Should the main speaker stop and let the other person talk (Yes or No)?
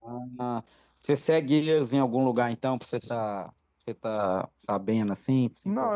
Yes